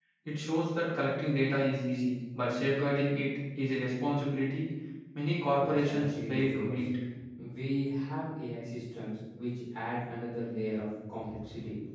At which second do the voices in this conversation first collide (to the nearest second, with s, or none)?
6 s